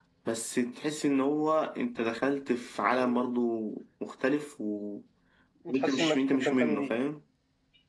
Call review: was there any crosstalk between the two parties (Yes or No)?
Yes